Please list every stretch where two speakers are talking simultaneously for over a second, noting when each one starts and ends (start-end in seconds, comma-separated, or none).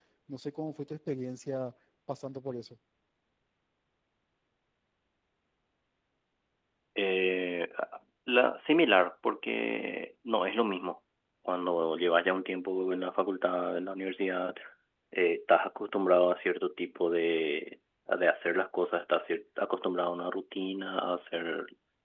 none